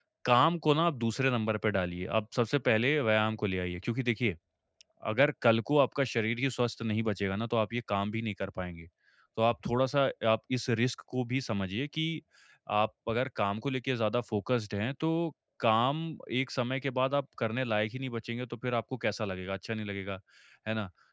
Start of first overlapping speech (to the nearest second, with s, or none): none